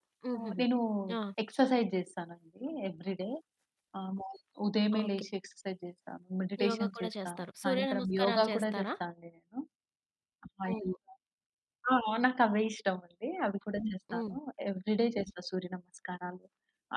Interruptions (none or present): present